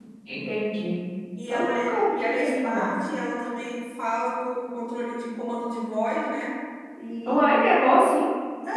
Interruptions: present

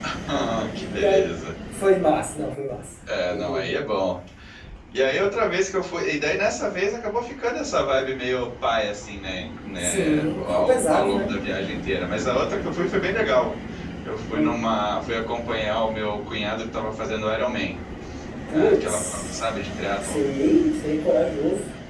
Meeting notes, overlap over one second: present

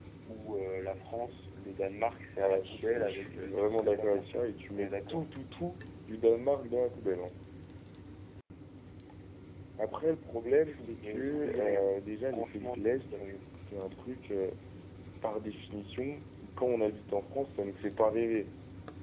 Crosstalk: present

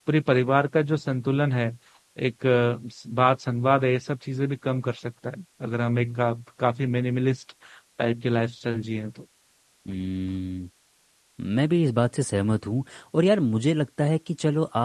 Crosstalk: none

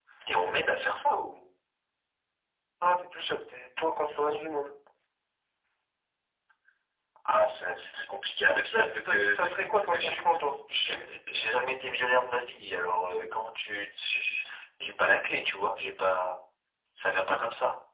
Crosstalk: present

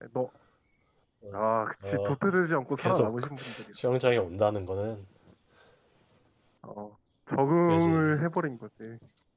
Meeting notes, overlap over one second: none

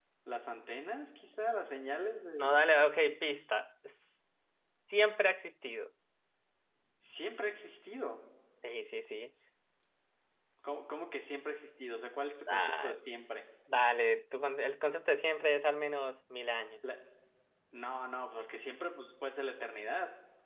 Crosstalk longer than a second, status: none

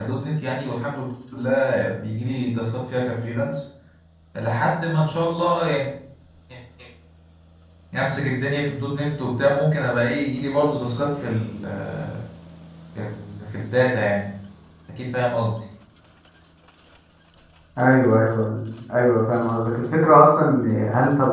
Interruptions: none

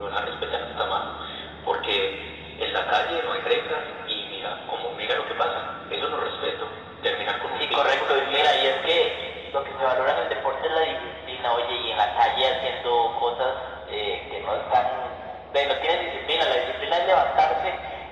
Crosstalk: present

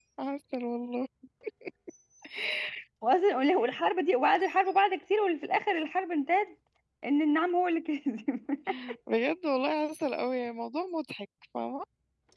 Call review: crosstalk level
none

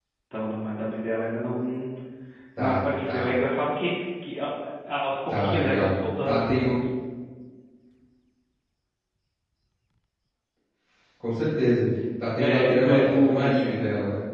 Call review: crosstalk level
present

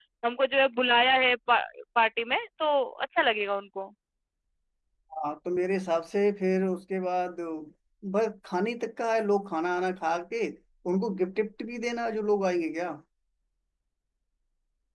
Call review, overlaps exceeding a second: none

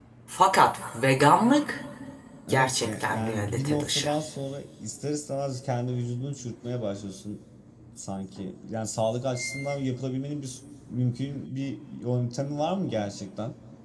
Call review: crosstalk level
present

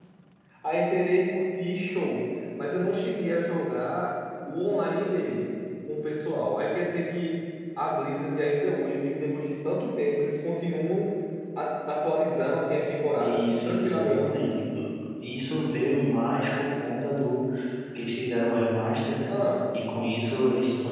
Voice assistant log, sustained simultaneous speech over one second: present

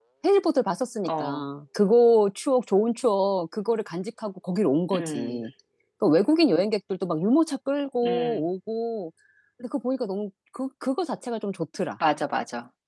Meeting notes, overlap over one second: none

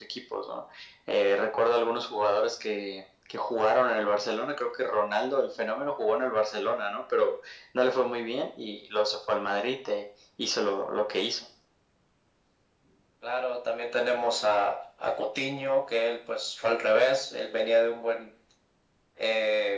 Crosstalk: none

